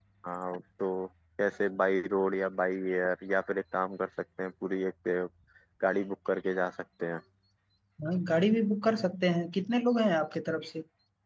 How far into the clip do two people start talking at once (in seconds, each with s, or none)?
none